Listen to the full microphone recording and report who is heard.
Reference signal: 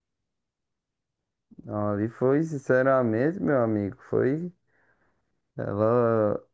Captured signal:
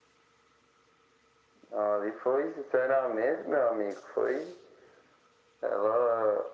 echo only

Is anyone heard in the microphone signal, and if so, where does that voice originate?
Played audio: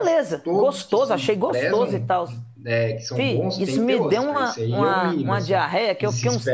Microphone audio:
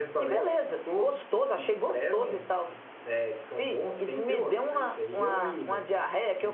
echo only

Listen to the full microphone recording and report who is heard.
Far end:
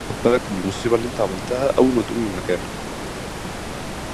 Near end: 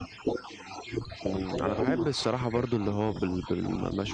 both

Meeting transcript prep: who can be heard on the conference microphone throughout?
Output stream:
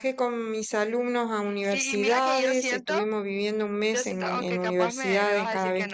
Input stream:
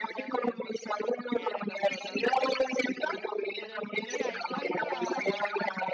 both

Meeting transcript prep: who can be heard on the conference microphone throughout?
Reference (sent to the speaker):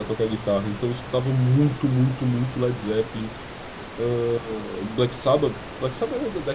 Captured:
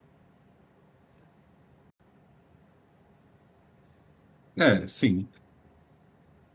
user only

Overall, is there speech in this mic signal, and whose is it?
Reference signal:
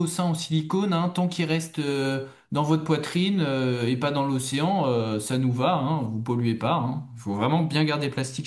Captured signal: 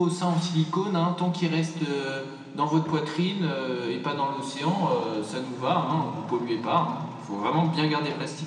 echo only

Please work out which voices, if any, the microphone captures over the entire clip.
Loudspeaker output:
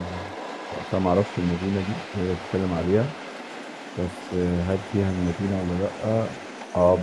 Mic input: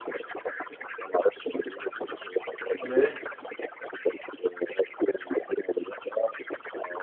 both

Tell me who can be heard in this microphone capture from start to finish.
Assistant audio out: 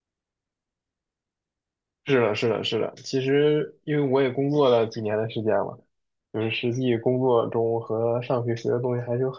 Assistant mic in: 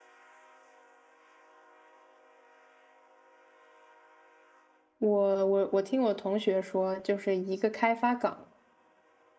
user only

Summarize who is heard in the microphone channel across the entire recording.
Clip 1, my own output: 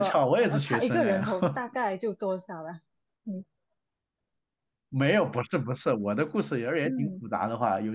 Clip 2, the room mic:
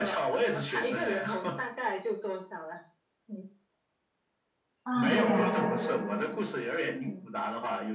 both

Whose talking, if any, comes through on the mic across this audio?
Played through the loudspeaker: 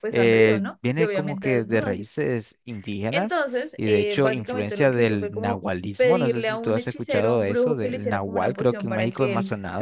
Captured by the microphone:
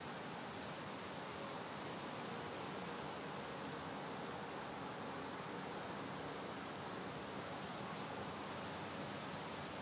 neither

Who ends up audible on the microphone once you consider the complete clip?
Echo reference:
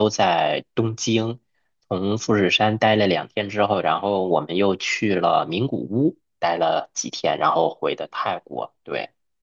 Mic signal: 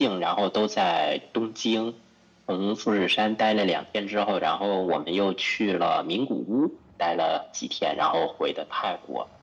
echo only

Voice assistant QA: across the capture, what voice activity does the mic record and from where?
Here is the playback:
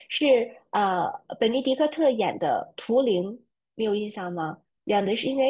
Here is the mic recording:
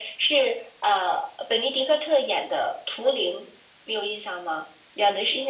echo only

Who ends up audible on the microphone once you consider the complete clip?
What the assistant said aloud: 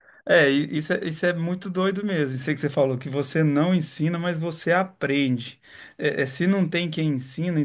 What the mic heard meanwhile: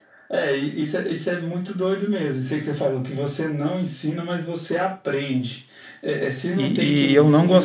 both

